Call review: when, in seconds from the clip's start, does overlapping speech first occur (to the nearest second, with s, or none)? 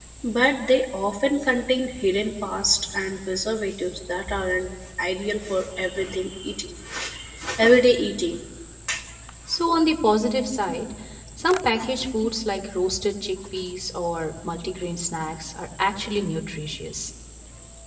none